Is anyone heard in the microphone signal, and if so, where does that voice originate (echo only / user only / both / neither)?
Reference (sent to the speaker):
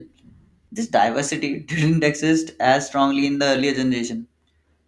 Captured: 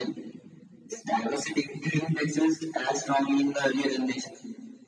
echo only